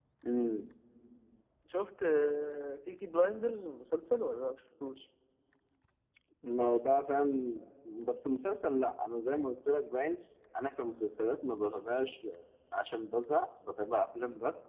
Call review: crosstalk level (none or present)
none